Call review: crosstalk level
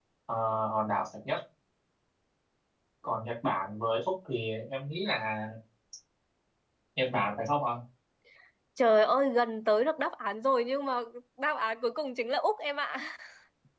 none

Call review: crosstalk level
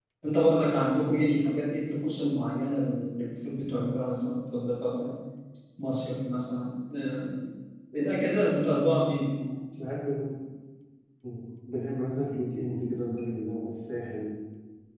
none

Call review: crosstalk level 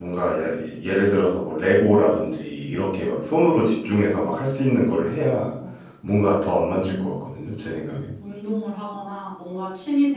none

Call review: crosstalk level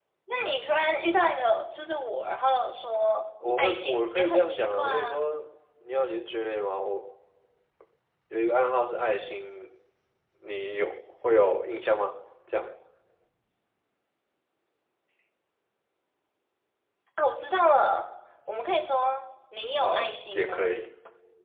present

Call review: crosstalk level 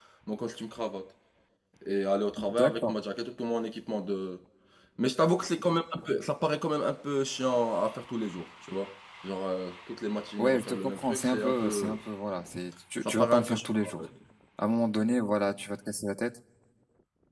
present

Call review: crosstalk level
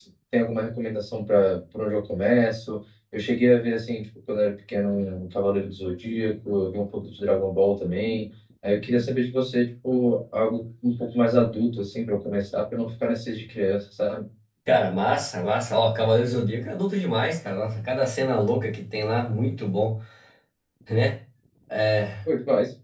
none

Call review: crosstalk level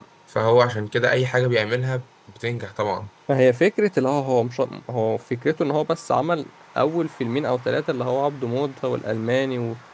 none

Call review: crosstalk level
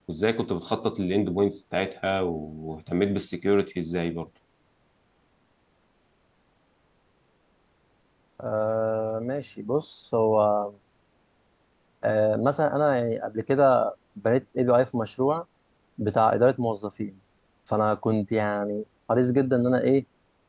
none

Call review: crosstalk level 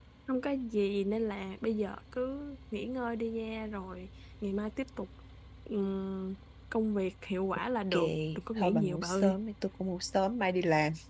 present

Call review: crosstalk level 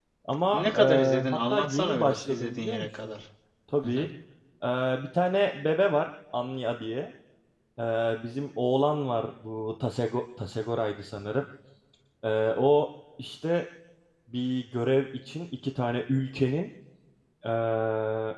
present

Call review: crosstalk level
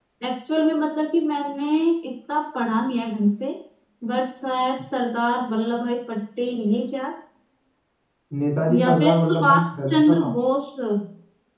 present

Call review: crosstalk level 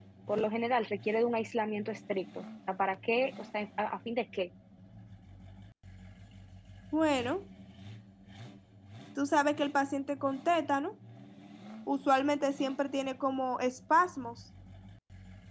none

